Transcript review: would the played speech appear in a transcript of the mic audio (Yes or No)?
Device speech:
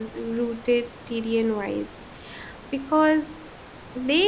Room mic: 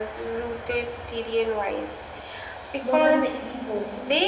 Yes